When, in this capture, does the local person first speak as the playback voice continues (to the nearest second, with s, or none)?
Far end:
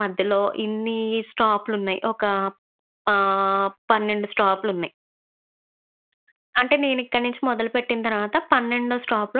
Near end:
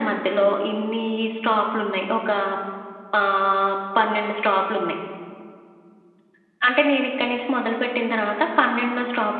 none